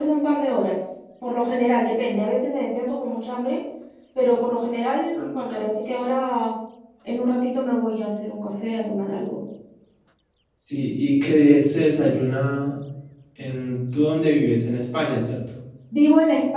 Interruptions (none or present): none